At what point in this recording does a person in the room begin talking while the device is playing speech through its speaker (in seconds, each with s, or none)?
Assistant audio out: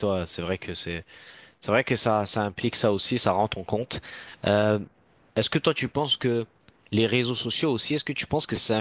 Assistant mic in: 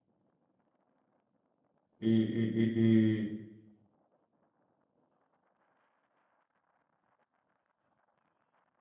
2.0 s